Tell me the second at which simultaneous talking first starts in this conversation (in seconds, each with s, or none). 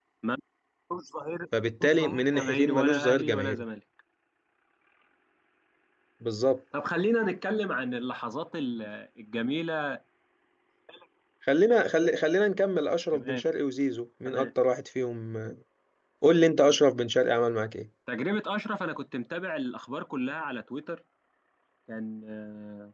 1.8 s